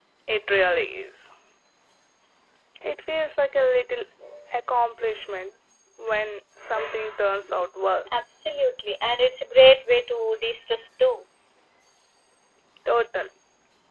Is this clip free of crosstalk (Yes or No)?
Yes